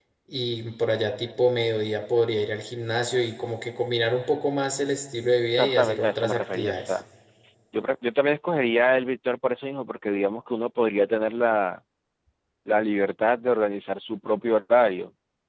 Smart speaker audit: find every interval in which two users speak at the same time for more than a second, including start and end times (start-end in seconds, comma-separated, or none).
5.6-7.0